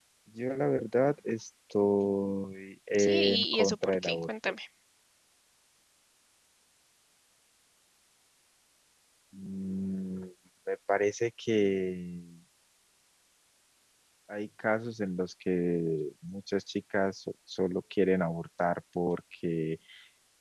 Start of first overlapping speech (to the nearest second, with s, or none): 3 s